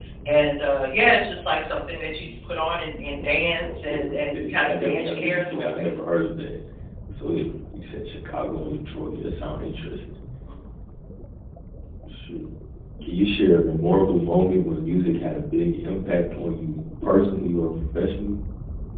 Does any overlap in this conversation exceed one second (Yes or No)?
Yes